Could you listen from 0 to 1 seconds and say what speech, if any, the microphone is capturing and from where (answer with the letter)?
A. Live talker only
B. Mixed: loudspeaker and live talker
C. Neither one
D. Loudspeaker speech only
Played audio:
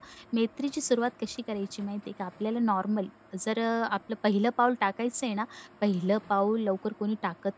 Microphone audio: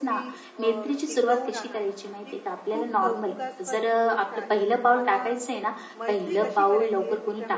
B